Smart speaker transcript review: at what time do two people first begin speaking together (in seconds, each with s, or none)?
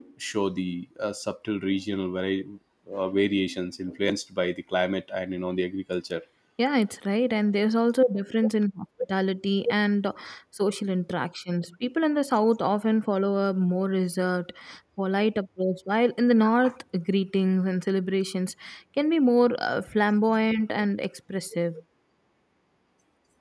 none